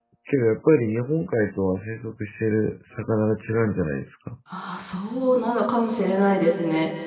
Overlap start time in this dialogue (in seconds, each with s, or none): none